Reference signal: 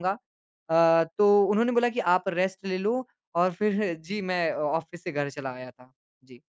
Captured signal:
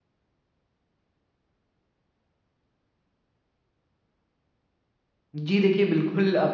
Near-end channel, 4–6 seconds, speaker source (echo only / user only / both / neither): user only